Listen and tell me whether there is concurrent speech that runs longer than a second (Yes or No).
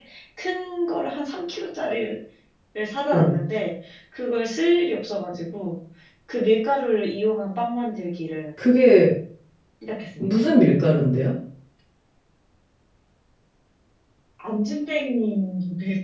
No